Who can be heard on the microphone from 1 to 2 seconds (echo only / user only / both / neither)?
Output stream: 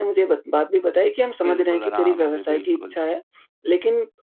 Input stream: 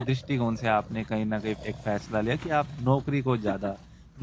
user only